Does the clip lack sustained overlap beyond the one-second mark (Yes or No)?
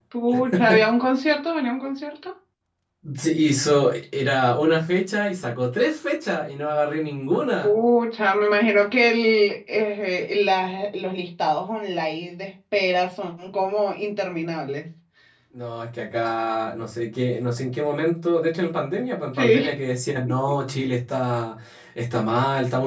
Yes